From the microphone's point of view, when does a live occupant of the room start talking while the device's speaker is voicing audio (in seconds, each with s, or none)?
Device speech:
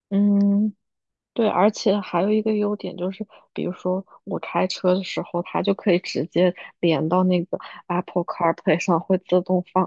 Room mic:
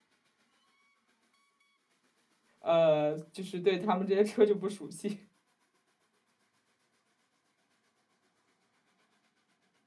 2.6 s